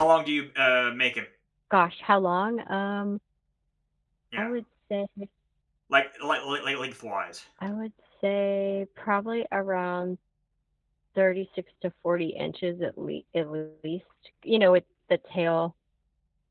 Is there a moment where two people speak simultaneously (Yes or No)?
No